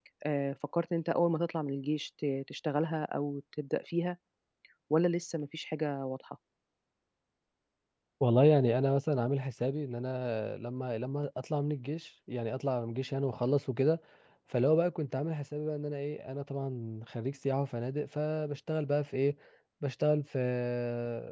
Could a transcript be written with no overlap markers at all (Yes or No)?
Yes